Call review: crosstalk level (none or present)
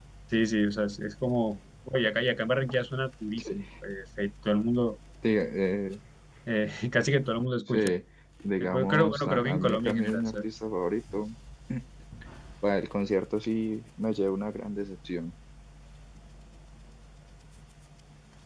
present